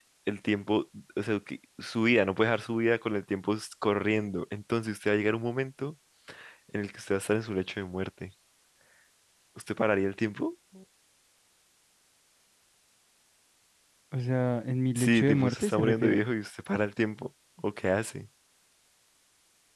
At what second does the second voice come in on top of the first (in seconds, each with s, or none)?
15.0 s